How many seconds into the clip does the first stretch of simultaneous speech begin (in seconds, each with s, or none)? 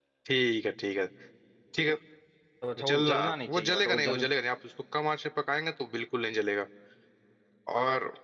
2.9 s